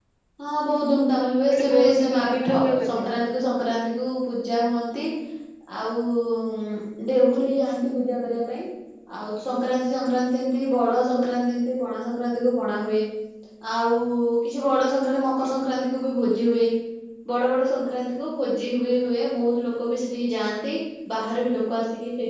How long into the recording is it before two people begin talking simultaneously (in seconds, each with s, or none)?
1.5 s